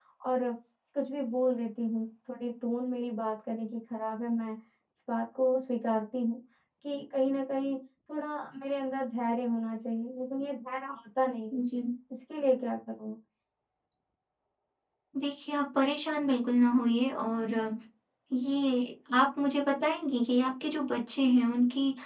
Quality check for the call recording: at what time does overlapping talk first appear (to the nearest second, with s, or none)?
none